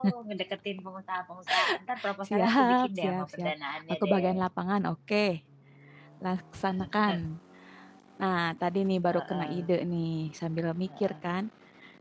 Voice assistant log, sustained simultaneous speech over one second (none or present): present